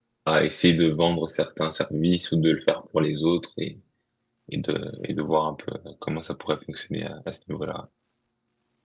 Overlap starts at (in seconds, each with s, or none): none